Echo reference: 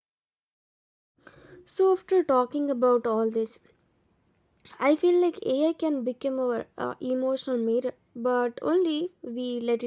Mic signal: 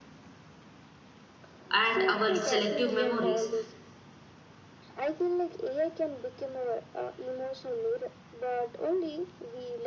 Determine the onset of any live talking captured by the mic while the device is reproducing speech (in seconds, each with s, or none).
1.7 s